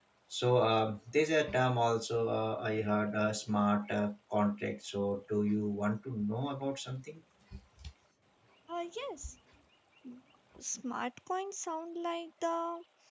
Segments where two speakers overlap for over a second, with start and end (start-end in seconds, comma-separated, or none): none